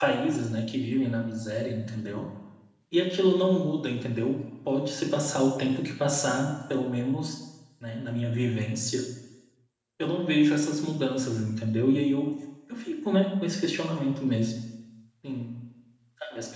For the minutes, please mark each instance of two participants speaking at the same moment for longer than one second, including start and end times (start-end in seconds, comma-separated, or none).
none